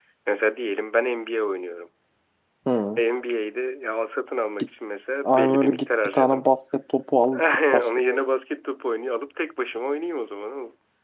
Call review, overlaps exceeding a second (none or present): present